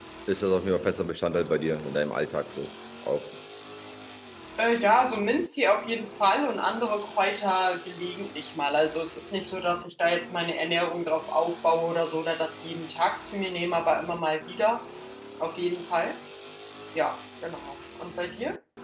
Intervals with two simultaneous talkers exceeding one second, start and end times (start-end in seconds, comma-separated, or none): none